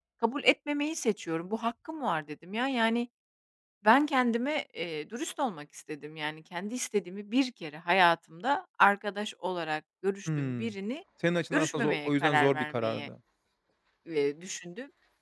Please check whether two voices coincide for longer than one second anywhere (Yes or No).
Yes